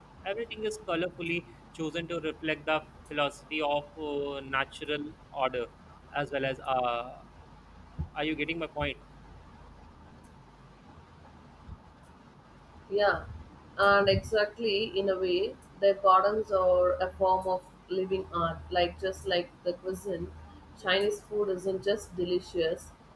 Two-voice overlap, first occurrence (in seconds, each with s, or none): none